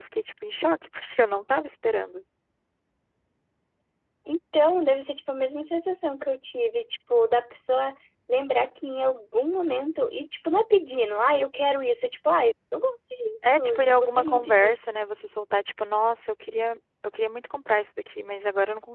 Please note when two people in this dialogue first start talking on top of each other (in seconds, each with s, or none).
13.4 s